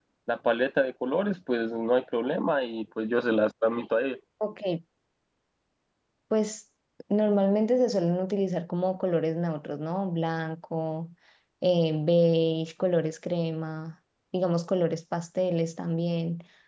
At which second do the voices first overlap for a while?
none

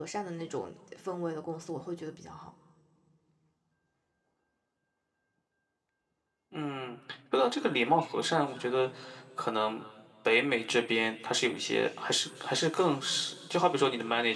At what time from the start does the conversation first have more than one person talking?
none

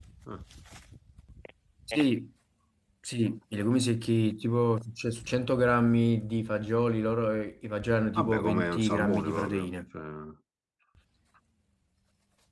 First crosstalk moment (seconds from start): 8.2 s

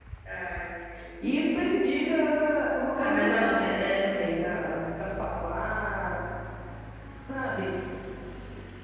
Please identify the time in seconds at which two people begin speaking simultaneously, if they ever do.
2.9 s

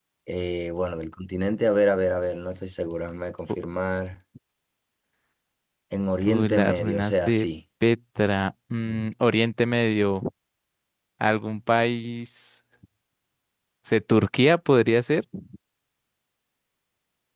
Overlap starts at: 6.3 s

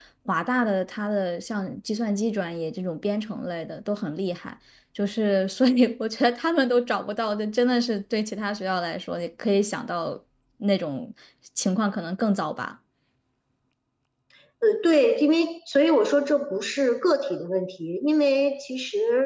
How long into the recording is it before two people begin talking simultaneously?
none

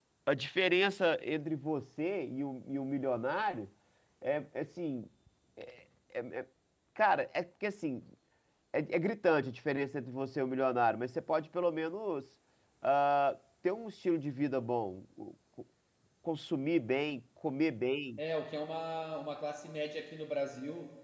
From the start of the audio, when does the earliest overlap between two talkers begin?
none

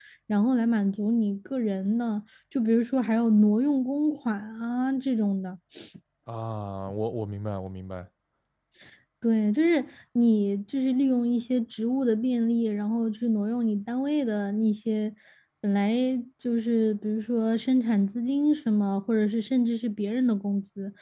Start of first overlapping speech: none

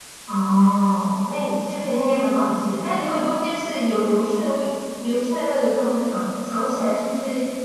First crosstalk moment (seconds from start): none

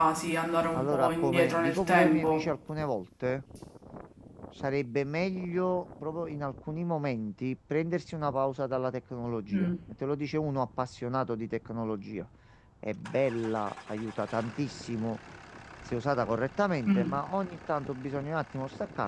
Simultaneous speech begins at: 0.7 s

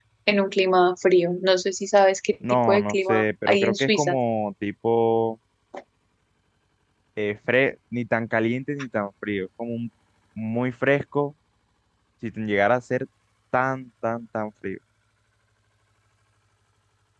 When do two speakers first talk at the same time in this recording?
2.4 s

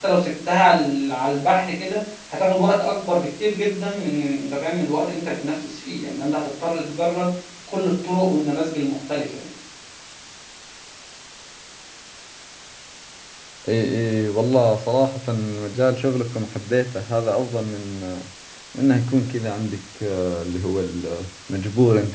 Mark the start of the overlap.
none

